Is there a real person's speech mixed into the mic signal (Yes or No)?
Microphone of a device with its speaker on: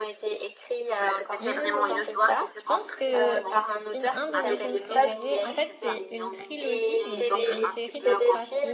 Yes